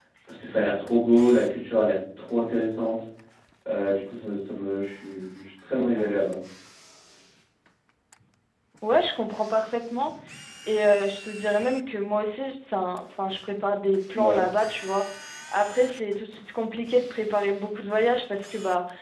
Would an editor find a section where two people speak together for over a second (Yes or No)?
No